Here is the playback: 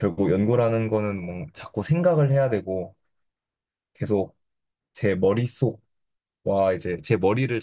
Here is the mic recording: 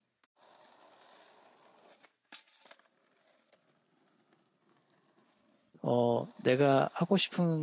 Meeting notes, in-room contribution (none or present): present